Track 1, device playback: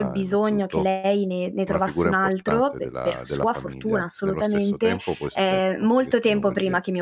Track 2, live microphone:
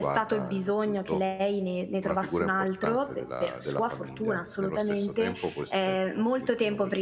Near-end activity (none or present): none